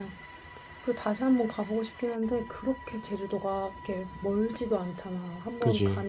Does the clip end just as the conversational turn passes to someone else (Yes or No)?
No